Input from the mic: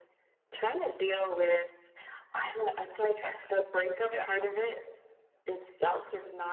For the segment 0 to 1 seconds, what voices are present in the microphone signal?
echo only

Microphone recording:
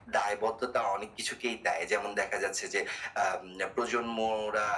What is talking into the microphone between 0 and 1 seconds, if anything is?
echo only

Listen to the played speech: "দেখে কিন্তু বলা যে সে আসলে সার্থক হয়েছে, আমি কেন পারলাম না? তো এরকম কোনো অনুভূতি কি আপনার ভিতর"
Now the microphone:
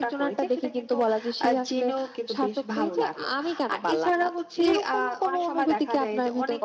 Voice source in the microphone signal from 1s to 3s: both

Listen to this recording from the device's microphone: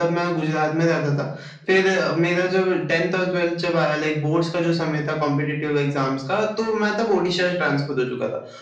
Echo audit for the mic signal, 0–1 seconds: echo only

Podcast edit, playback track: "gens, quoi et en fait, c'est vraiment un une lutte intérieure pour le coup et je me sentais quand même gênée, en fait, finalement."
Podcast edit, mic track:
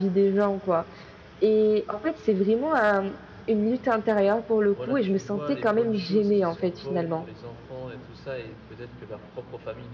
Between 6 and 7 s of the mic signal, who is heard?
both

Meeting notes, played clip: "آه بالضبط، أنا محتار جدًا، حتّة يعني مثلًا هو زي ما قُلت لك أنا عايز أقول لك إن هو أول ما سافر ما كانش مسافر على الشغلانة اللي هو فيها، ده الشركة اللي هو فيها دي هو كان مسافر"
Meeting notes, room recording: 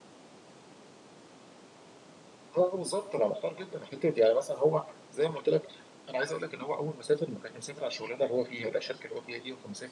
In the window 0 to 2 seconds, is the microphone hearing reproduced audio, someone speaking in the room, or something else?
neither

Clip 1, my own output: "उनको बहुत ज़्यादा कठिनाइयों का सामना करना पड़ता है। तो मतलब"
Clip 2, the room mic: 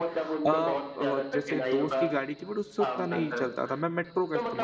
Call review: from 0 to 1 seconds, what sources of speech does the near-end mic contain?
both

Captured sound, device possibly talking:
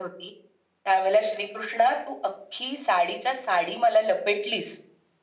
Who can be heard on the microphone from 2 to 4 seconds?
echo only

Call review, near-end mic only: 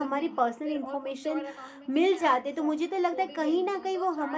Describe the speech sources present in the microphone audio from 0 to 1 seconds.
both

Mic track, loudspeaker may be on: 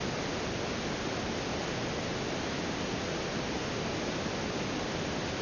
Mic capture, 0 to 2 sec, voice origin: neither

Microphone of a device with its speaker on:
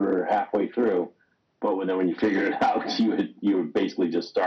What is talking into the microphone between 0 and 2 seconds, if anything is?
echo only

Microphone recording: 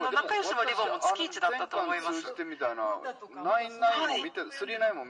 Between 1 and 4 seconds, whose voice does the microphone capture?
both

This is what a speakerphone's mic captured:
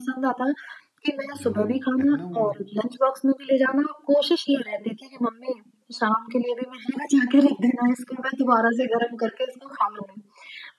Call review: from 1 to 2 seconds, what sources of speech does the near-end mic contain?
both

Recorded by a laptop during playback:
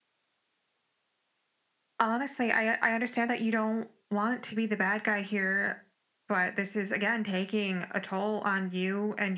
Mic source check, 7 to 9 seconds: echo only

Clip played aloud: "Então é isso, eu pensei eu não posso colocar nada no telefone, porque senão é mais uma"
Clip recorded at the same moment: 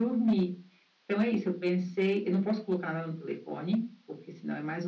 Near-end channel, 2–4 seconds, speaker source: echo only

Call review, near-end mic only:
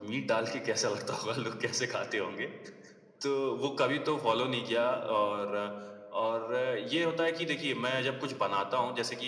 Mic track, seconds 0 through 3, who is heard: echo only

